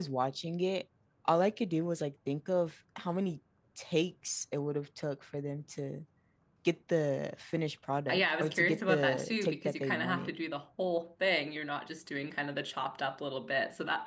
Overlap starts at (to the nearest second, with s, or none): 8 s